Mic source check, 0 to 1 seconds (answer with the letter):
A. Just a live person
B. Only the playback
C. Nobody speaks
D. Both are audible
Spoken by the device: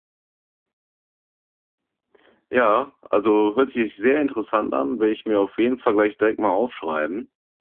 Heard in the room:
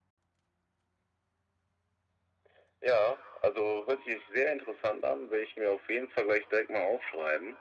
C